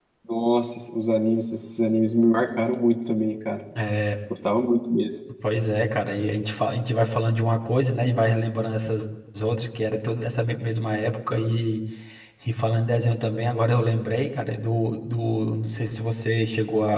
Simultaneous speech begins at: none

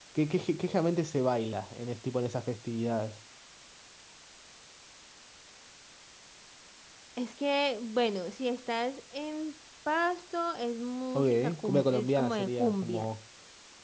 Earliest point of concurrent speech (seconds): 11.1 s

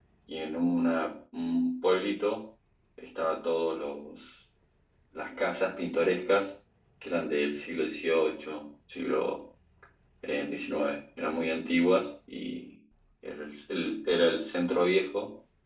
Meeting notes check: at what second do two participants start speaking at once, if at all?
none

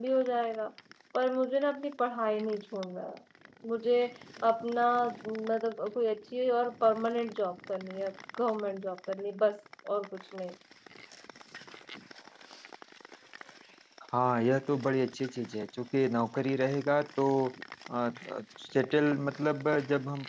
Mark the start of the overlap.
none

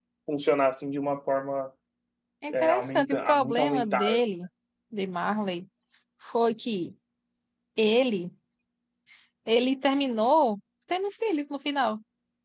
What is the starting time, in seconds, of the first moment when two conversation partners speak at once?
2.5 s

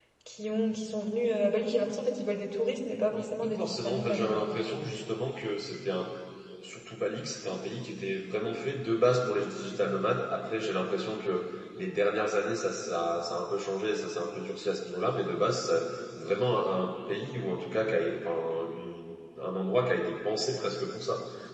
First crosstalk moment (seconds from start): 3.1 s

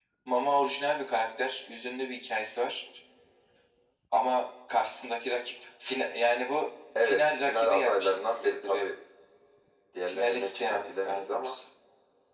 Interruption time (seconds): 7.0 s

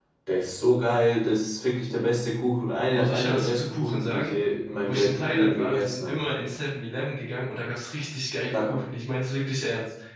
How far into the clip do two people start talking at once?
2.9 s

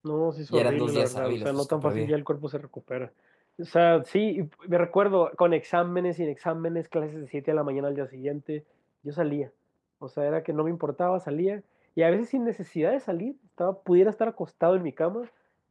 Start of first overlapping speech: 0.5 s

